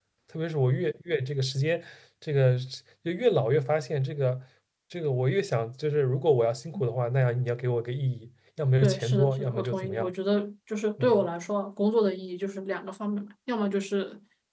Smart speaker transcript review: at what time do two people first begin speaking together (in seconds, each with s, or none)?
8.8 s